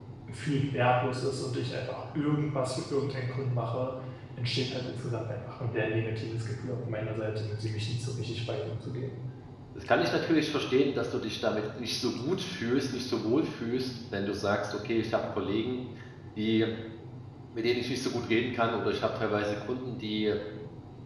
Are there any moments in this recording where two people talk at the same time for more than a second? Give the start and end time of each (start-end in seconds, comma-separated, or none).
none